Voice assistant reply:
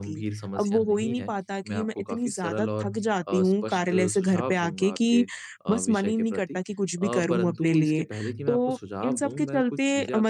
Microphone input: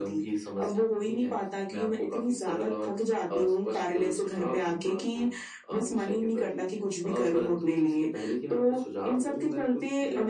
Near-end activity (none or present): none